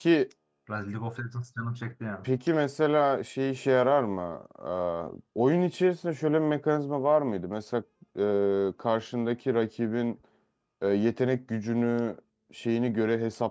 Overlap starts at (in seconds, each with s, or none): none